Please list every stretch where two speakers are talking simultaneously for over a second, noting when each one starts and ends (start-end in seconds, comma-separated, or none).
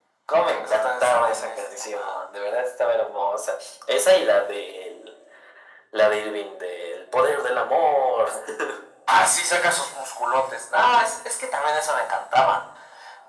0.6-2.2